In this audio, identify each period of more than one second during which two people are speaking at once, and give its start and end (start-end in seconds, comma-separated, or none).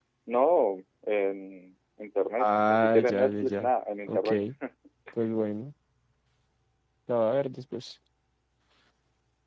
2.4-3.7